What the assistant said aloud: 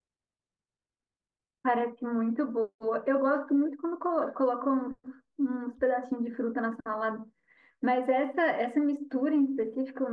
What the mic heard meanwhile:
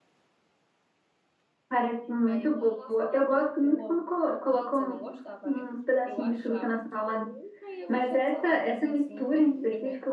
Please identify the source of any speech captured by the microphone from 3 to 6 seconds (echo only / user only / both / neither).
both